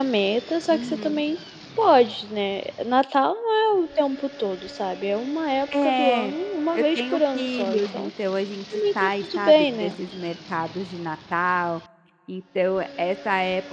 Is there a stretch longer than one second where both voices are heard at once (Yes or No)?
Yes